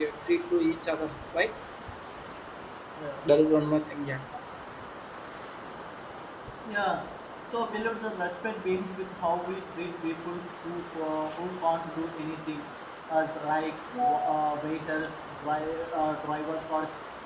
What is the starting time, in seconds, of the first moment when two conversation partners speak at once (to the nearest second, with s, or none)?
none